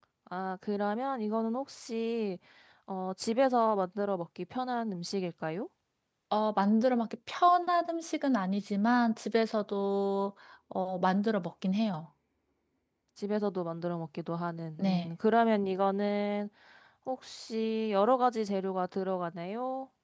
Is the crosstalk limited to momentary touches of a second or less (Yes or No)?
Yes